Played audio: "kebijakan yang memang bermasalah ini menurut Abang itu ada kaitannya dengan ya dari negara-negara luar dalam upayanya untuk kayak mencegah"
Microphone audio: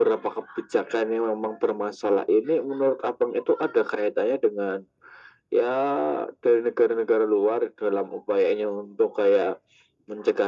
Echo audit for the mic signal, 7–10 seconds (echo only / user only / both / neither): echo only